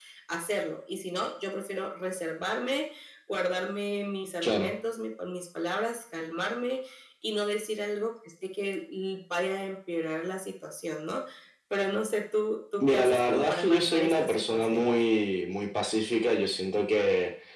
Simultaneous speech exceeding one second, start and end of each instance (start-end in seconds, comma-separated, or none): 12.8-14.8